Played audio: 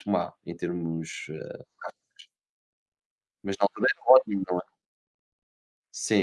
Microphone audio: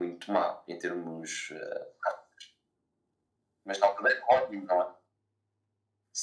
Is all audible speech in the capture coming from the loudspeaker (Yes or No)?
Yes